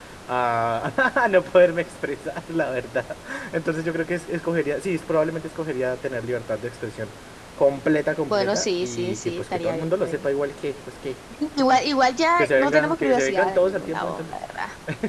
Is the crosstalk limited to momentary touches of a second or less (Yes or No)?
No